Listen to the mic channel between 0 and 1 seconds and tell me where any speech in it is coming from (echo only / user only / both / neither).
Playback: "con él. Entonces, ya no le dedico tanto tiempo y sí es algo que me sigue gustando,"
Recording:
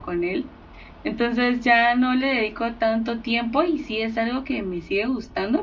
echo only